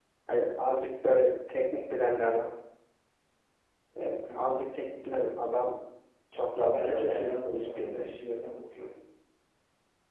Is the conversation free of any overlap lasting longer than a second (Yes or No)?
No